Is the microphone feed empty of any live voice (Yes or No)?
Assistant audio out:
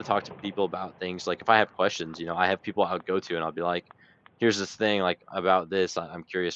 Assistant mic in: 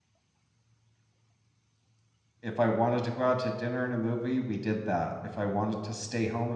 No